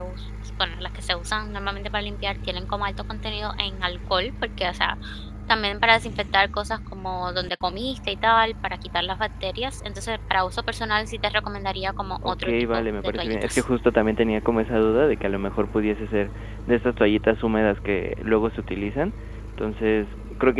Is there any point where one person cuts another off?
Yes, from 12.2 s

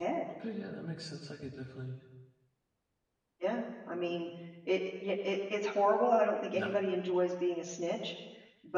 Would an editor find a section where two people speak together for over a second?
No

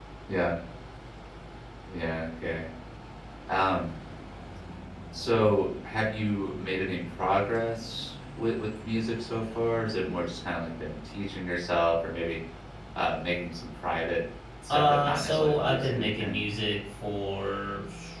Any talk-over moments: Yes, from 14.7 s

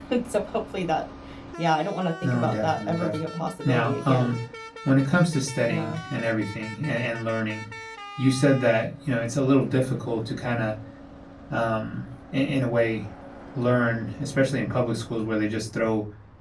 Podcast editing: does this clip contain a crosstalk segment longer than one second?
Yes, from 2.2 s

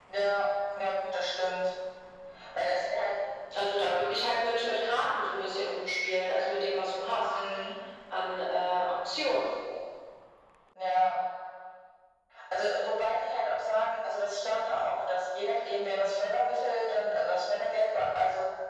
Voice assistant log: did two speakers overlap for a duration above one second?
No

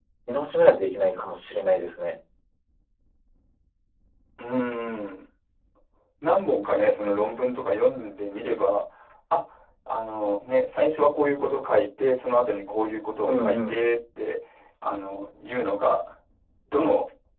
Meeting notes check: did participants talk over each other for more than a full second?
No

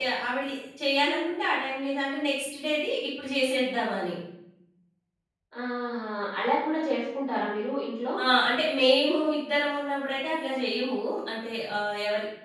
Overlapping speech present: No

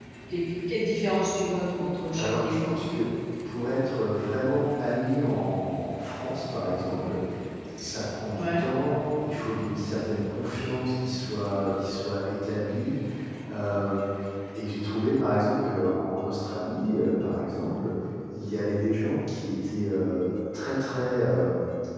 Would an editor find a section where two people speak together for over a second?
No

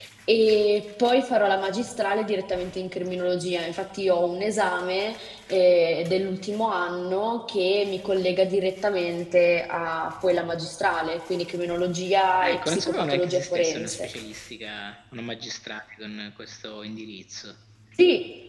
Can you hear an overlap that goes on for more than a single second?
Yes, from 12.4 s

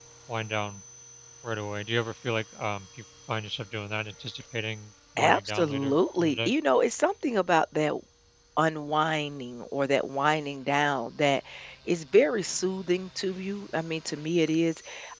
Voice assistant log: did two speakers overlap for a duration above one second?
Yes, from 5.2 s

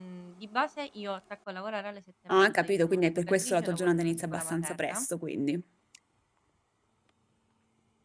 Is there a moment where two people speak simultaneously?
Yes, from 2.3 s

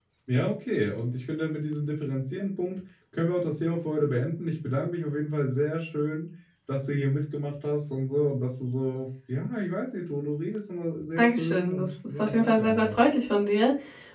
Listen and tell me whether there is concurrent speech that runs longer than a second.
Yes, from 11.2 s

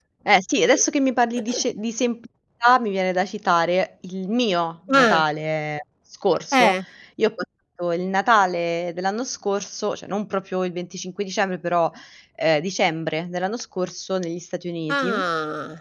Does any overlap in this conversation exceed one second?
No

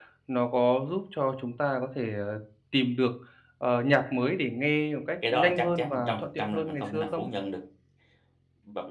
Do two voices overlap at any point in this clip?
Yes, from 5.2 s

